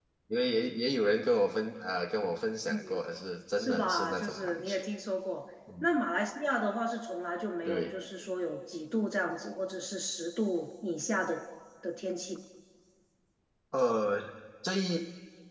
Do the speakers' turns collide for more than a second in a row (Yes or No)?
Yes